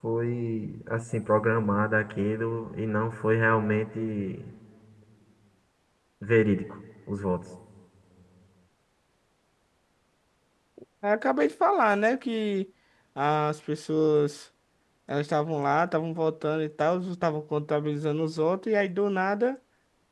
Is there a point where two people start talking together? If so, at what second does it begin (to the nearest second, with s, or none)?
none